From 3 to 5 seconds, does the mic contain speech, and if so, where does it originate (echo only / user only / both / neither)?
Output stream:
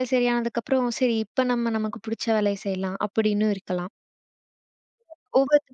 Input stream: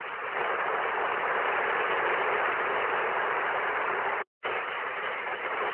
neither